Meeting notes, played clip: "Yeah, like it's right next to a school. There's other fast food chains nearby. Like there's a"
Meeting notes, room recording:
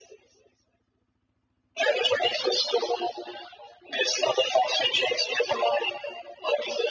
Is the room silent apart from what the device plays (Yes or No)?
Yes